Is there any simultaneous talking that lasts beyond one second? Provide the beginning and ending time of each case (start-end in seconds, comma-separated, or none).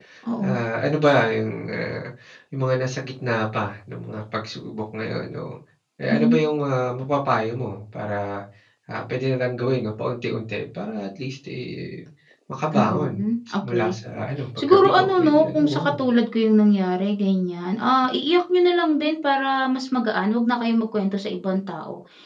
14.7-16.0